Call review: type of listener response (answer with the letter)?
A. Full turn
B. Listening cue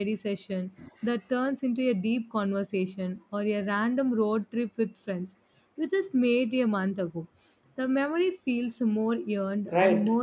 A